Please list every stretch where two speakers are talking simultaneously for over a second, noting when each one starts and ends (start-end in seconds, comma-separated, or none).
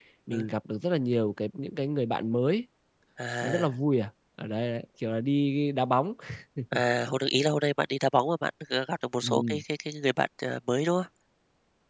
none